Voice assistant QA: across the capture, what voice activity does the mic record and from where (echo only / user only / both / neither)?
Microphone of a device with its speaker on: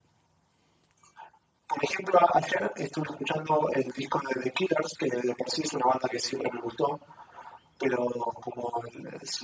echo only